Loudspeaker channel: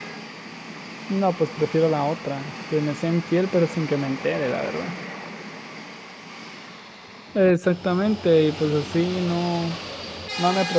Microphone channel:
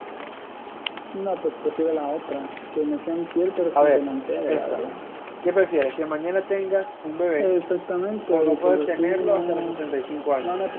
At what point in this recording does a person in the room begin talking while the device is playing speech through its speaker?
3.7 s

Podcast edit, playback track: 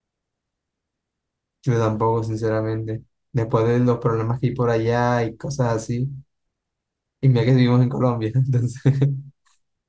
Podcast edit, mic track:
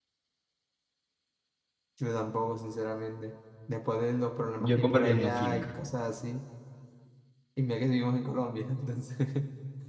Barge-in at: 4.6 s

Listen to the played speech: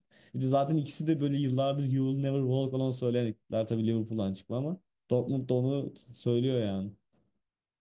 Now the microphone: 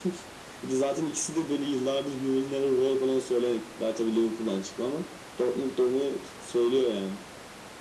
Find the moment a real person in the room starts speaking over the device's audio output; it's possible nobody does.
none

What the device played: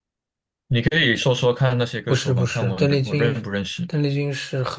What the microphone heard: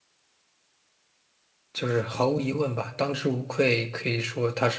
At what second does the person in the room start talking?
1.7 s

